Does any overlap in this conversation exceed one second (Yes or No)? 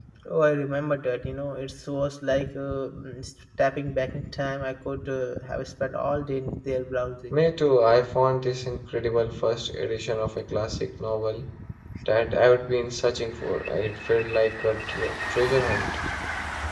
No